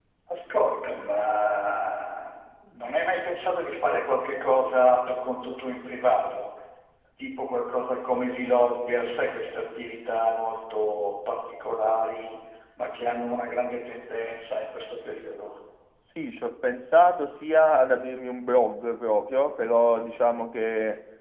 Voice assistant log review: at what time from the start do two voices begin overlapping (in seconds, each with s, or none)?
none